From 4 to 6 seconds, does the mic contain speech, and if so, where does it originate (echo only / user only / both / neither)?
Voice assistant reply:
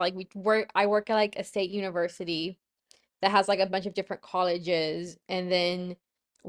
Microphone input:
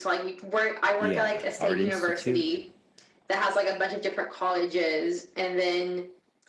echo only